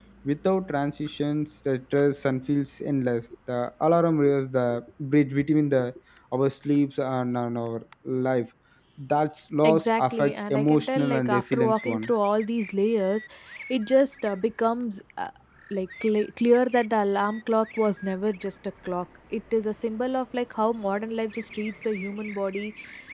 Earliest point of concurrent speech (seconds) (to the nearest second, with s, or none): 10 s